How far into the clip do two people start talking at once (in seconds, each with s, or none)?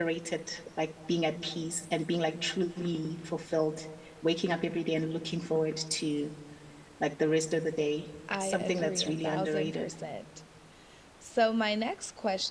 8.3 s